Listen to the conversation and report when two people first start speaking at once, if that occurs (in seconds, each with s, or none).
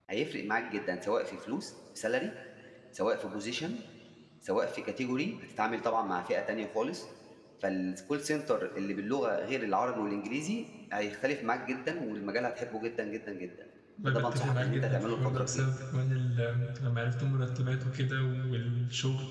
14.1 s